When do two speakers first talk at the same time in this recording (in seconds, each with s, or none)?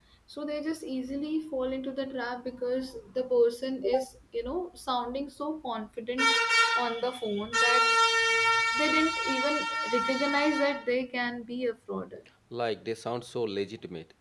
none